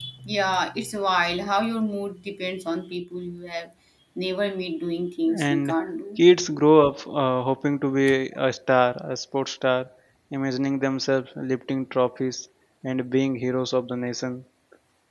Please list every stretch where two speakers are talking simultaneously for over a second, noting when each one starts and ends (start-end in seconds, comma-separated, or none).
none